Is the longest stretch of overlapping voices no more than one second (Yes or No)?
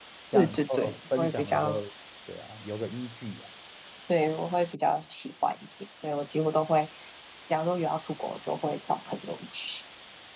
No